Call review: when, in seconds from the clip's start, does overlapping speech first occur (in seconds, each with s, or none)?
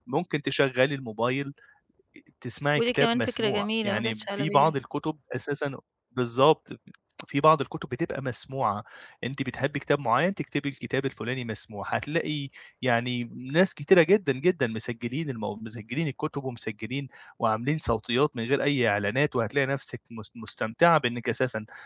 2.8 s